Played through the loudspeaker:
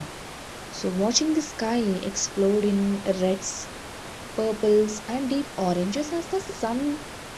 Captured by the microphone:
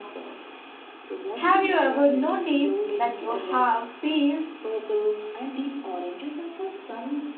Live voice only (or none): Have you ever noticed that you have feel